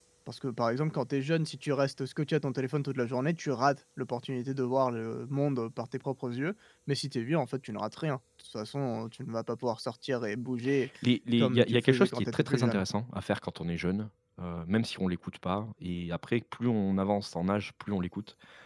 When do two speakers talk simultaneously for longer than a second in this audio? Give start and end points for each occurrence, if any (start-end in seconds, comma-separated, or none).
11.4-12.8